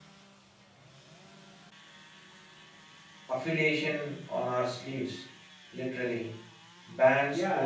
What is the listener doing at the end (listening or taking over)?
taking over